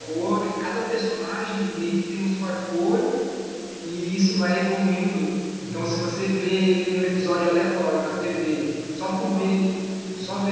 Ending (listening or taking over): listening